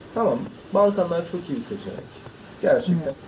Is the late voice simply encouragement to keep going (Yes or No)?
Yes